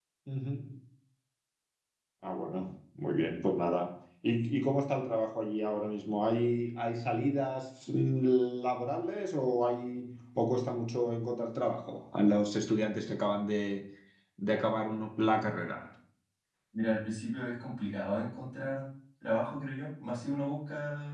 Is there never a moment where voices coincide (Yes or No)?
Yes